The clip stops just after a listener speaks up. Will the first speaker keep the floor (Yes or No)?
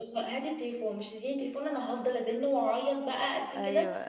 No